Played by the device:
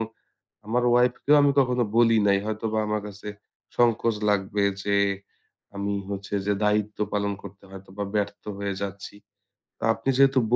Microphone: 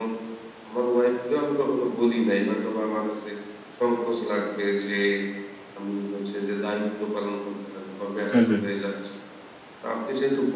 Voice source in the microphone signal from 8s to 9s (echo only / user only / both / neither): both